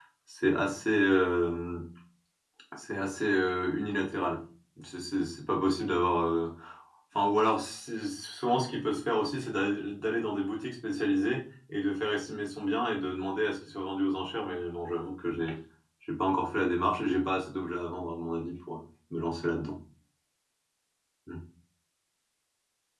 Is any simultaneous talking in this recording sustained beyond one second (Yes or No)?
No